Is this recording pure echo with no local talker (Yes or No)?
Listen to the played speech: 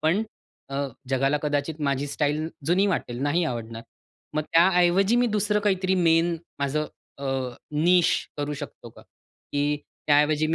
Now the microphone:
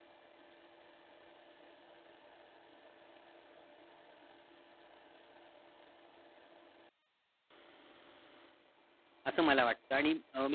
No